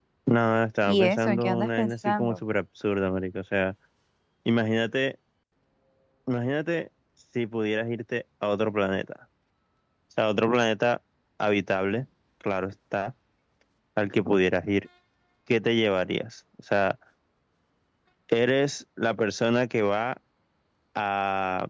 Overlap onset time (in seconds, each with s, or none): 0.8 s